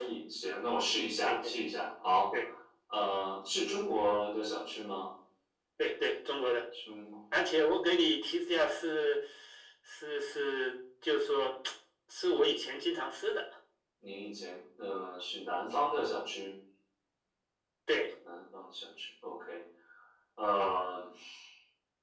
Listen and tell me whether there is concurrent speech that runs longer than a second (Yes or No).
No